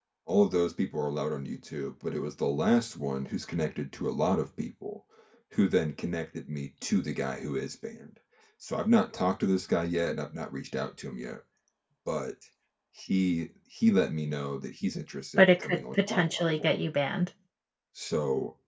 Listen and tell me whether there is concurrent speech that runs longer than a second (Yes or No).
Yes